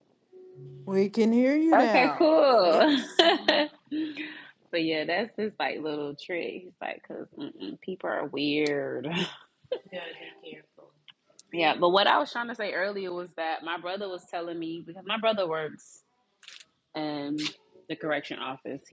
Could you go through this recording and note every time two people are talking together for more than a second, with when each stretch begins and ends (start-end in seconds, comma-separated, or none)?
1.7-3.0